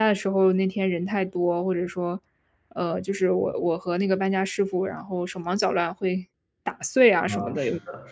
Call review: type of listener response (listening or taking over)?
taking over